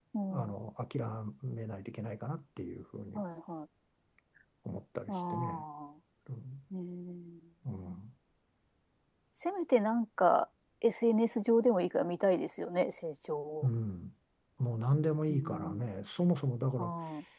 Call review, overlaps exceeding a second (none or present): none